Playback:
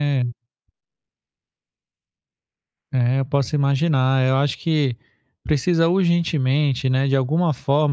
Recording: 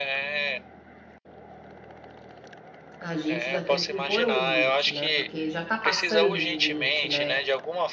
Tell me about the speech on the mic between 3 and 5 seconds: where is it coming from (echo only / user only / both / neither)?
both